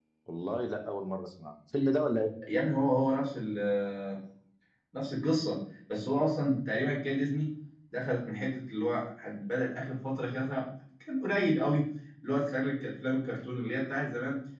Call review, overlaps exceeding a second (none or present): none